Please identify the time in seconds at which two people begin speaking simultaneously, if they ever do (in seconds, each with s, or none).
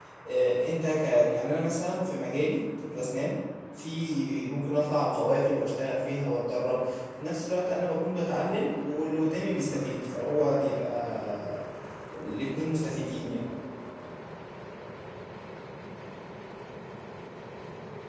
none